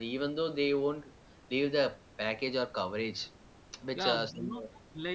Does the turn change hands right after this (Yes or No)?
Yes